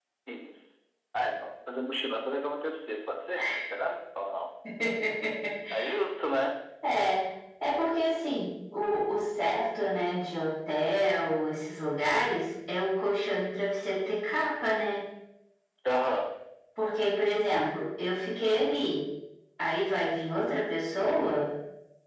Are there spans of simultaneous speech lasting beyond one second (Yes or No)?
No